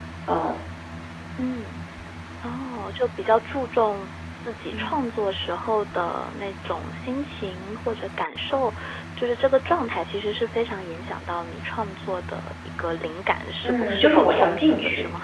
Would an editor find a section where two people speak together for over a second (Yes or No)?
Yes